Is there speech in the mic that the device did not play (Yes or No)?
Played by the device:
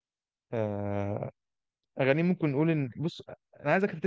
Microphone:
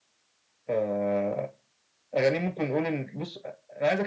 No